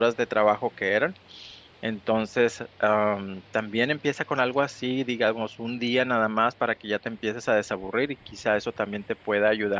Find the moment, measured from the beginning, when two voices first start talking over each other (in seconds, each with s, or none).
none